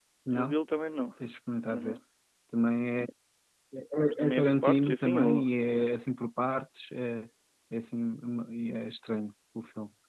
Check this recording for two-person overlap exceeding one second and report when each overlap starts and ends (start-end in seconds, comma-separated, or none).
4.0-5.5